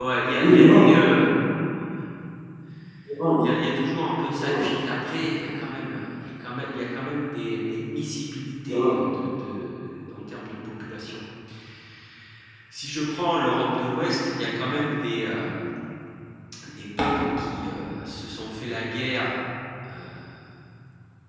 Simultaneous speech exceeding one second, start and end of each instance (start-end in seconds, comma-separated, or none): none